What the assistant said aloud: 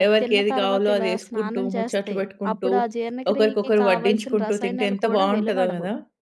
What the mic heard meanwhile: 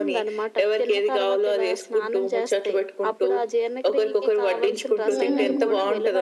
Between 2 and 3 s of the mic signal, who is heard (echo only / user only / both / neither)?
echo only